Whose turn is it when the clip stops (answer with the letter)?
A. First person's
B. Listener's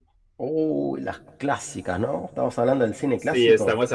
B